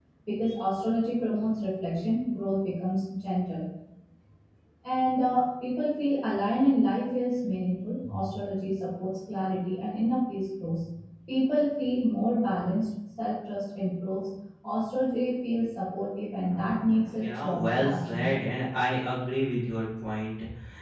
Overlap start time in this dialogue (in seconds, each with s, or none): 17.1 s